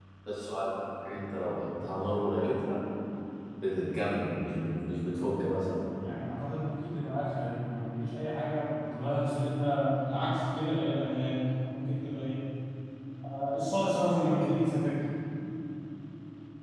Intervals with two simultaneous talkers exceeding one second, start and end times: none

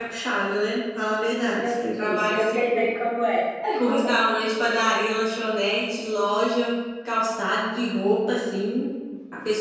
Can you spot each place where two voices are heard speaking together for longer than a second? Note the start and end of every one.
1.6-2.9

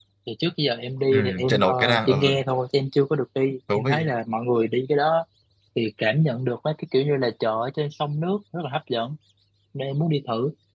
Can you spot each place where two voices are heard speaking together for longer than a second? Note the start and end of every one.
1.1-2.4

